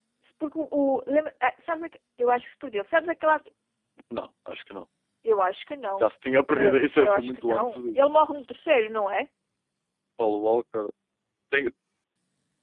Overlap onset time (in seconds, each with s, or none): 6.5 s